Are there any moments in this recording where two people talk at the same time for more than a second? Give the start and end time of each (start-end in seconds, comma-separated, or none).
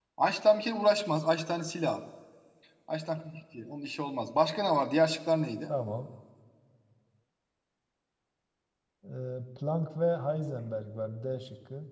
none